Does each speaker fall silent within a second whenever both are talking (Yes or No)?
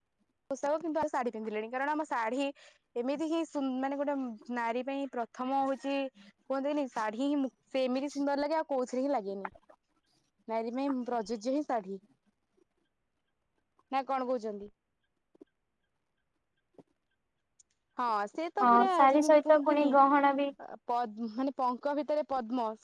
No